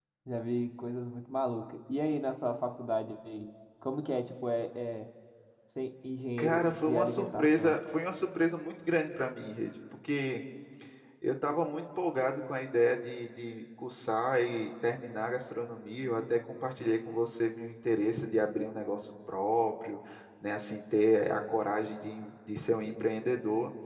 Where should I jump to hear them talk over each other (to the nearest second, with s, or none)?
6 s